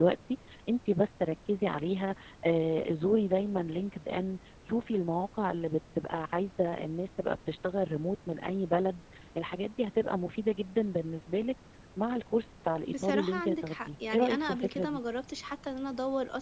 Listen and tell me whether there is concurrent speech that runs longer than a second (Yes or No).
Yes